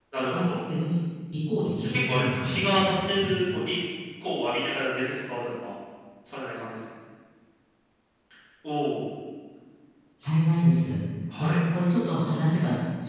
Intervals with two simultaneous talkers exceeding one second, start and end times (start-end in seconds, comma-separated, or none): 1.8-3.3